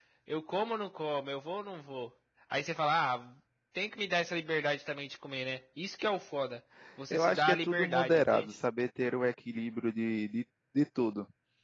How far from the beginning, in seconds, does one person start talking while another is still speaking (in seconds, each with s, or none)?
7.1 s